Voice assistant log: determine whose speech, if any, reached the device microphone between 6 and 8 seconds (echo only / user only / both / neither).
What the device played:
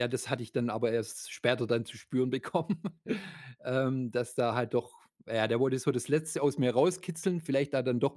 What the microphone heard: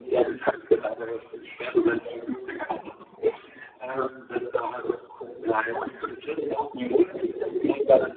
echo only